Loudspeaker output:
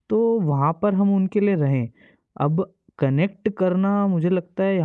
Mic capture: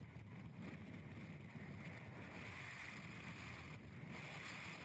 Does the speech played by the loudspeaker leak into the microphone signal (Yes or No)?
No